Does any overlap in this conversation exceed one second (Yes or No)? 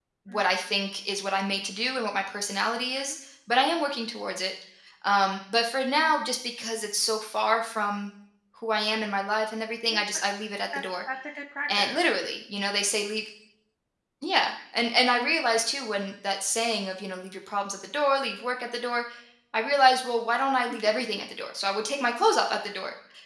No